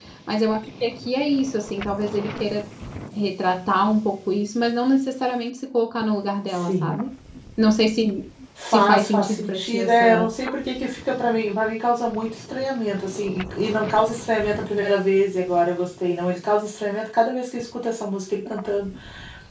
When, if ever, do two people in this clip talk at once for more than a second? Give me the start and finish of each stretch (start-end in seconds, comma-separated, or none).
8.7-10.2